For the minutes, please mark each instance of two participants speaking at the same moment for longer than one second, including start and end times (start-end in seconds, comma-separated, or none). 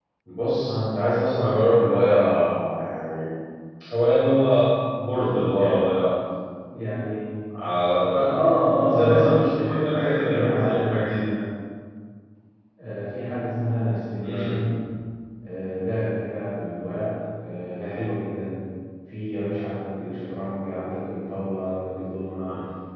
8.8-11.2